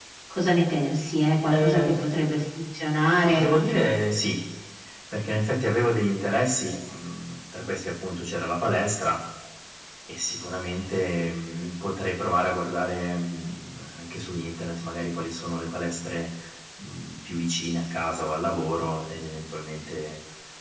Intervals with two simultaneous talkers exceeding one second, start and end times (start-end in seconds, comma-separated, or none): none